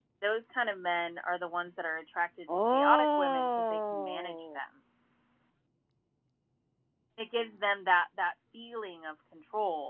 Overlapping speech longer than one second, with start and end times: 2.5-4.6

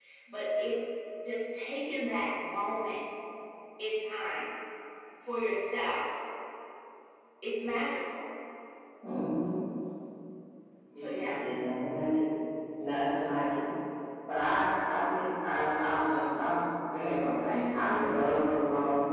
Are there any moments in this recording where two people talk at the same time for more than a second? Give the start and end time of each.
none

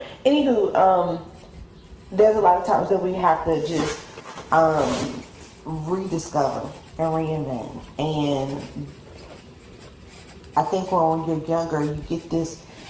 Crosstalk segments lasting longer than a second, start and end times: none

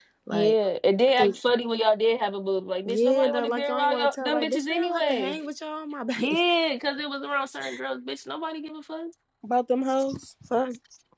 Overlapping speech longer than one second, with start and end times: 2.9-5.4

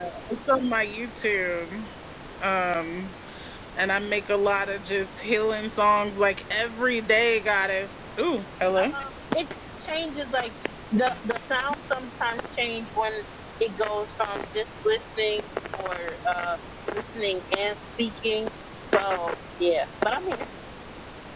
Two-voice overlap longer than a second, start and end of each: none

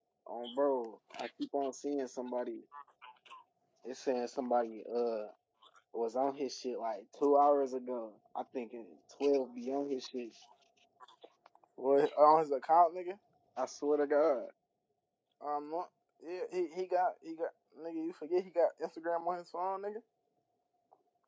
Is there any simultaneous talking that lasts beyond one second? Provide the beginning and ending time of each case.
none

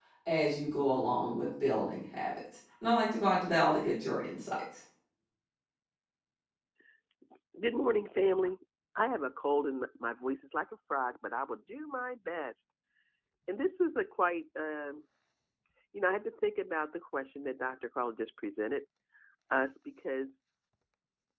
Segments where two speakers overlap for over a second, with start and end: none

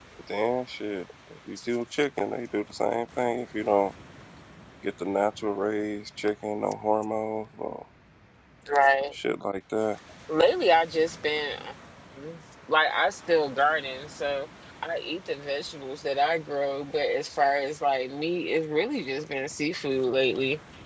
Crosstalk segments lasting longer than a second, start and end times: none

